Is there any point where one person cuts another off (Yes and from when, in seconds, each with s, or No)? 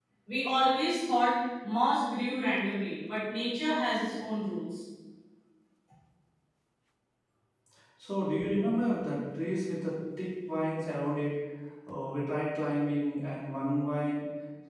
No